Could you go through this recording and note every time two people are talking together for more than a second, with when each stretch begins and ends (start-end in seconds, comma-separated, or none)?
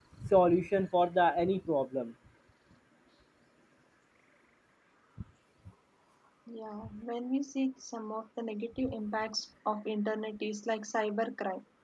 none